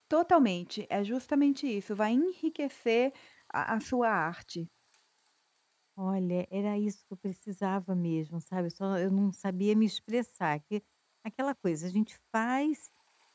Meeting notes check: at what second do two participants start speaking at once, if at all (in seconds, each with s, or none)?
none